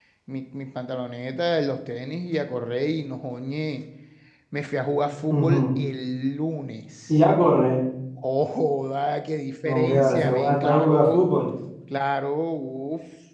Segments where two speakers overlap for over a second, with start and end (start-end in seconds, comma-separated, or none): 9.6-11.2